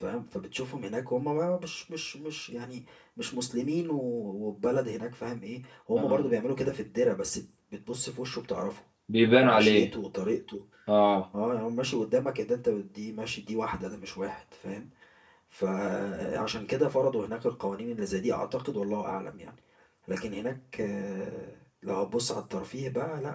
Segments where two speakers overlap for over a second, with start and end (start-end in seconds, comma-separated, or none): none